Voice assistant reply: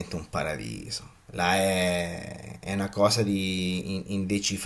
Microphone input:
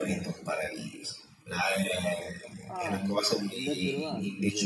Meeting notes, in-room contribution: present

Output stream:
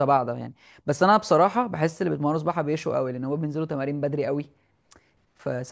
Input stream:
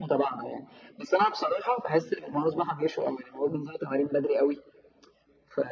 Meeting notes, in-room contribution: none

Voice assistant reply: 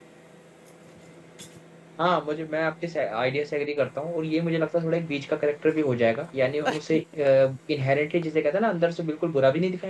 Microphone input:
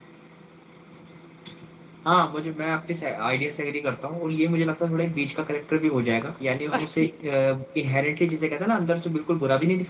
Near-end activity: none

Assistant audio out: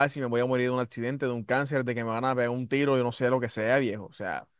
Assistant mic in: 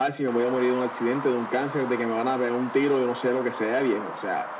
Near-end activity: none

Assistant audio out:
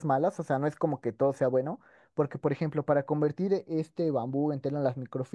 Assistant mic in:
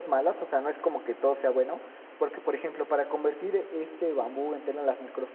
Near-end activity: none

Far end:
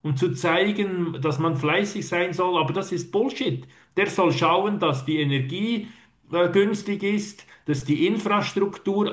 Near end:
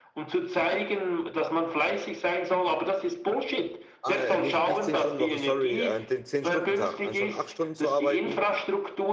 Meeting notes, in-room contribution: present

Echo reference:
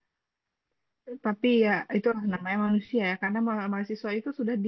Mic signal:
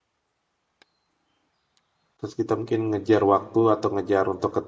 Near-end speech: present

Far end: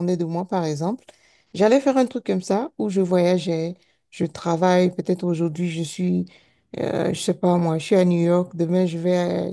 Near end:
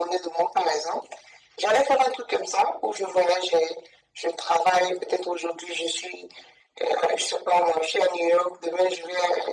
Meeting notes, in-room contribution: none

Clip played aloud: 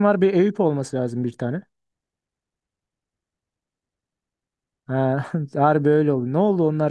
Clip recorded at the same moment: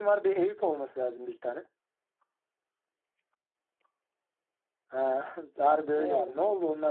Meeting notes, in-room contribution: present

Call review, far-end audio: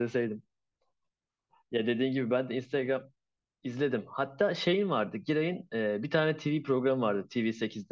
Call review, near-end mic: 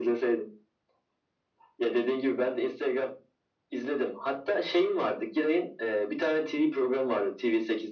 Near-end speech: none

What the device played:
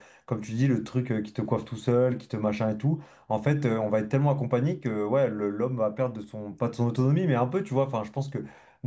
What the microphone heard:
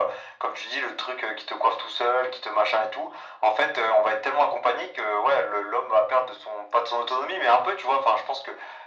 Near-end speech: none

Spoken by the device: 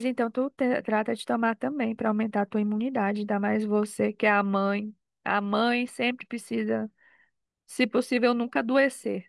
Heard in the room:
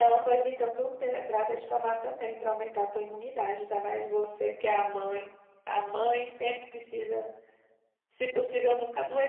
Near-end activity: none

